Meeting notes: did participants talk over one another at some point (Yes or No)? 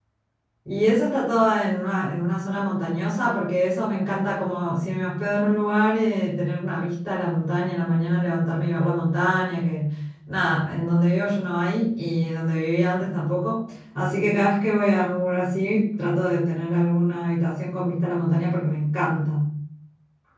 No